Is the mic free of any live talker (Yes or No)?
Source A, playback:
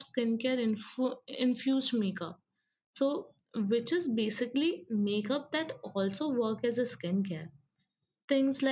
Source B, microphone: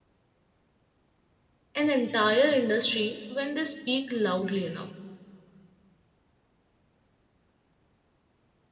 No